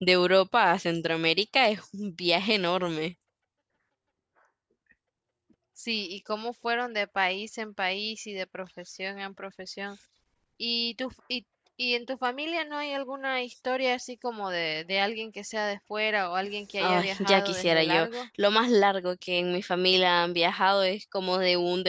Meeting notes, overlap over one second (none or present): present